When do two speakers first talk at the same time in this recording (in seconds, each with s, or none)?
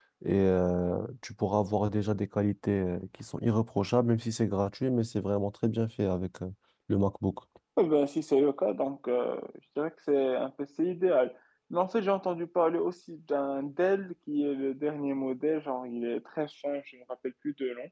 none